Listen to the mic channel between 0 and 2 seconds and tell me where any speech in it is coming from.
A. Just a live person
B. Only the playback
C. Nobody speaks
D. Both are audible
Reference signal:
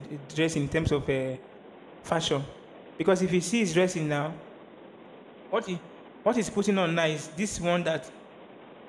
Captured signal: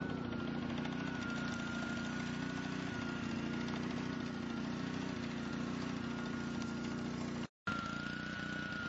C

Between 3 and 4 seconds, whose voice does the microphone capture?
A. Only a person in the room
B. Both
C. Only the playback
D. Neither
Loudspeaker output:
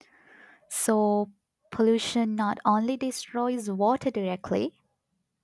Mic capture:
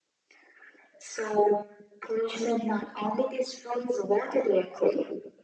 C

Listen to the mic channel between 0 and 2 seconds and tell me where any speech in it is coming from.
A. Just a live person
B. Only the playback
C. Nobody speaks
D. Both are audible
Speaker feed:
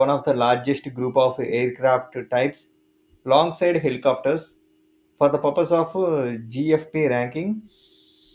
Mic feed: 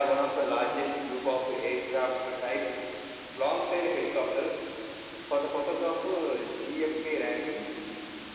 B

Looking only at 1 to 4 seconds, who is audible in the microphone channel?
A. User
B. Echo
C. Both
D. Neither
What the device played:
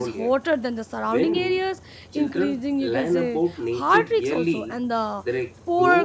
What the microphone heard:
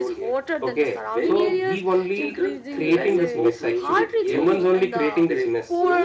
C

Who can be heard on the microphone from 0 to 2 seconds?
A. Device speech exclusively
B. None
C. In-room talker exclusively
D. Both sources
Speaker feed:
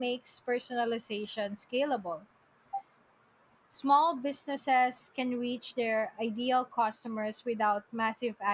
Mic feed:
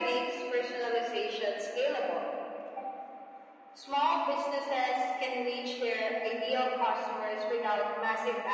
A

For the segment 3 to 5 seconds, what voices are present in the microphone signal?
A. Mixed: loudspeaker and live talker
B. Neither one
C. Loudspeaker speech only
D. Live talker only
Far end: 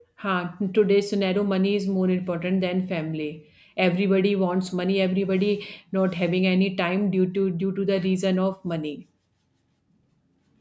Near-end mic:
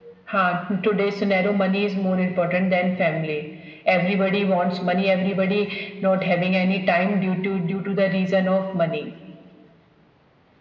C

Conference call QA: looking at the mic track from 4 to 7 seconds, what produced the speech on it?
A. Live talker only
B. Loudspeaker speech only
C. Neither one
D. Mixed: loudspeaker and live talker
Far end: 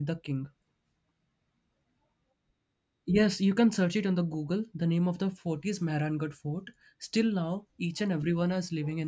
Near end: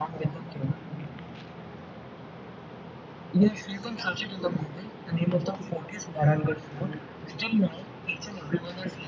B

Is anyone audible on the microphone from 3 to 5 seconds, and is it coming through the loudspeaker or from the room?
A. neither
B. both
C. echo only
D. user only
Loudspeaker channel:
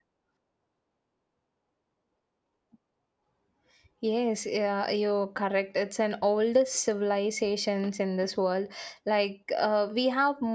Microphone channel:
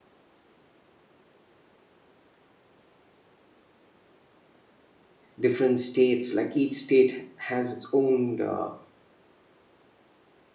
A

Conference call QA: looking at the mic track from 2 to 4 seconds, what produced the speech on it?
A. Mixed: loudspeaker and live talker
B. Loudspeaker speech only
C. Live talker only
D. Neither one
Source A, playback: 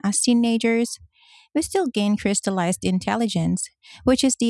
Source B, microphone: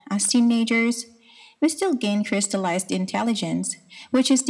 B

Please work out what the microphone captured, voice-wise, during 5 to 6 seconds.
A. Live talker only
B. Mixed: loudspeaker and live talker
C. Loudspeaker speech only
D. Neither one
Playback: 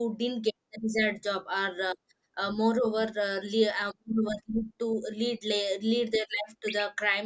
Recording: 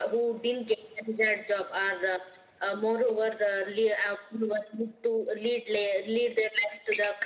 C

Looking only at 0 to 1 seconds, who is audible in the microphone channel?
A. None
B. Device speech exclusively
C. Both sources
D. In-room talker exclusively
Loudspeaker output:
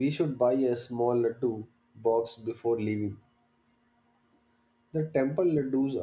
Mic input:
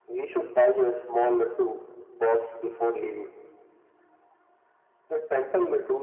B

